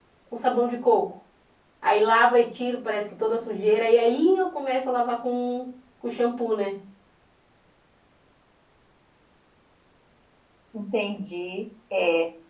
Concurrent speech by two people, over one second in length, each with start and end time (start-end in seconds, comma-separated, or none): none